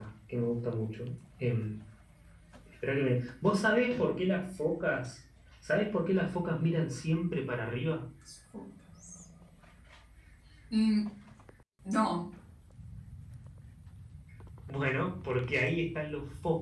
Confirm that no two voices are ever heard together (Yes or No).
Yes